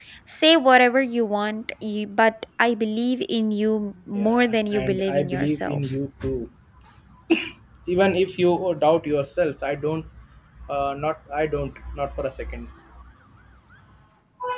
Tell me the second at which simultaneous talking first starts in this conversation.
4.2 s

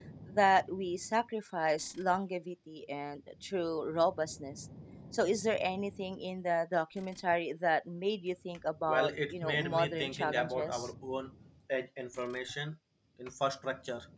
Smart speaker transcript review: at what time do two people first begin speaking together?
8.9 s

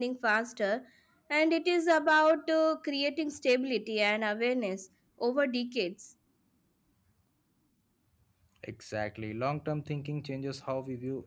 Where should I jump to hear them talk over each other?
none

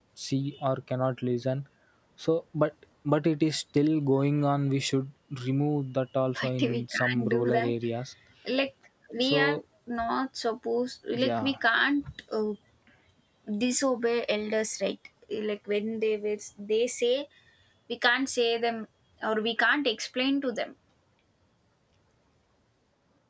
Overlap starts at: 6.3 s

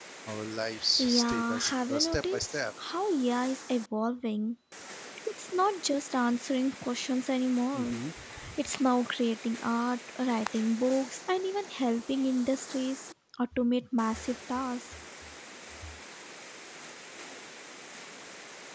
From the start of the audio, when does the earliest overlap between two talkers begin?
1.0 s

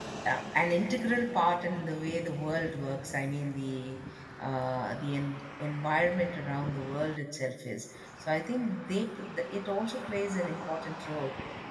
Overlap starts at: none

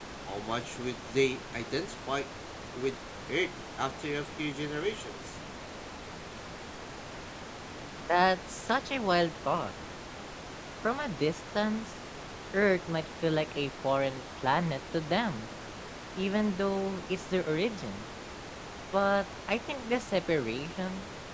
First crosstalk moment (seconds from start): none

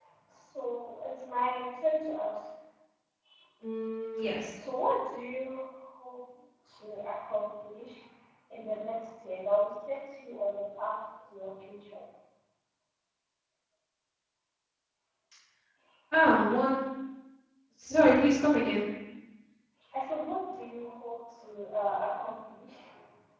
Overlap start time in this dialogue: none

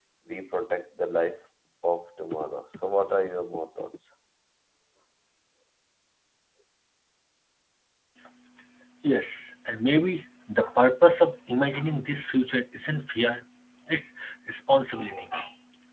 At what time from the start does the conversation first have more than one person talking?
none

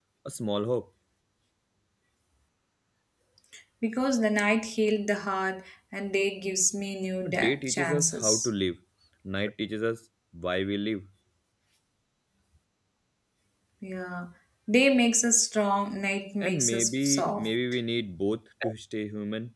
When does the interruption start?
7.2 s

